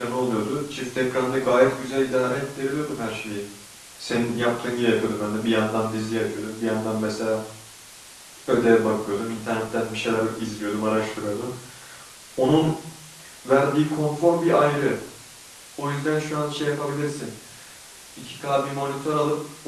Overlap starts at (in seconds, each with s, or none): none